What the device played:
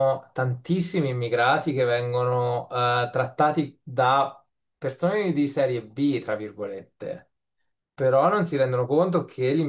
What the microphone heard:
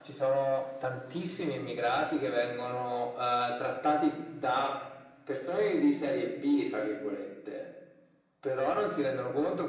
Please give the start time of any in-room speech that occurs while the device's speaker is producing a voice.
none

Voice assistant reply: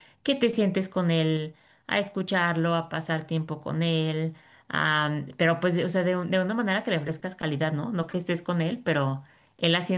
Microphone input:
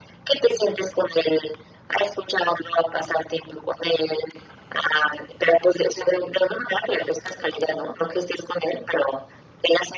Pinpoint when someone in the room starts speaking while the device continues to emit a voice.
none

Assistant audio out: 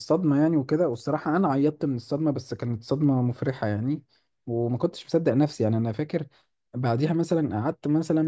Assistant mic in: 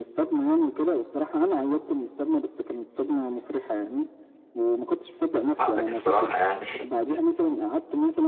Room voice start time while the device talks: 5.6 s

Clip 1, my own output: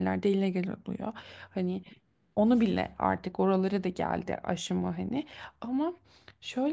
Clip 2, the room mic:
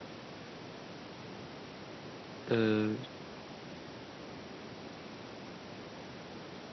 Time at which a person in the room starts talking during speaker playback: 2.5 s

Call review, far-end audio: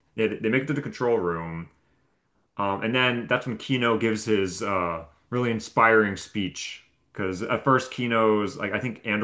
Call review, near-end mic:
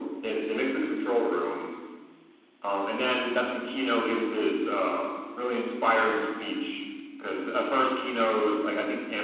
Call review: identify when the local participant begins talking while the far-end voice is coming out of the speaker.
none

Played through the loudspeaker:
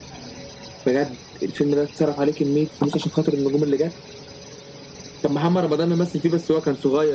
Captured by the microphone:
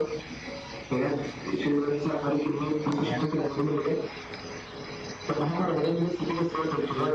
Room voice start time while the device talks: 3.0 s

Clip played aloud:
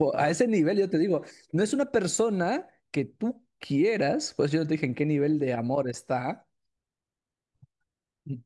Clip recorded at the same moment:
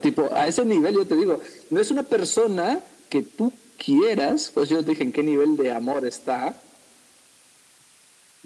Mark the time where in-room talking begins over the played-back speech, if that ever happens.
none

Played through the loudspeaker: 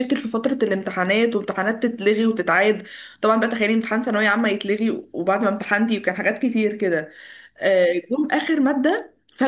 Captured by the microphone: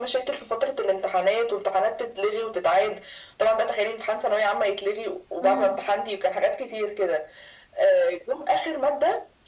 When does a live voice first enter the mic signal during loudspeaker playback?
5.4 s

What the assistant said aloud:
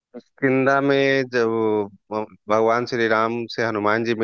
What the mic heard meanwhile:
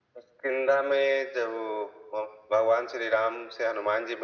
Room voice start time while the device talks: none

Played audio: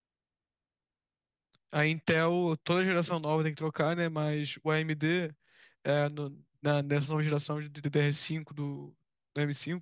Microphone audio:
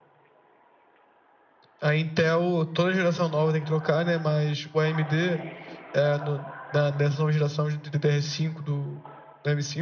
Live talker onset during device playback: none

